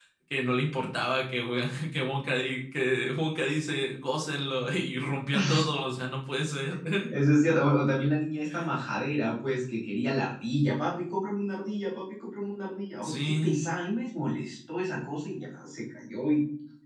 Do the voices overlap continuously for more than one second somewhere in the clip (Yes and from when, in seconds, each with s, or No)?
No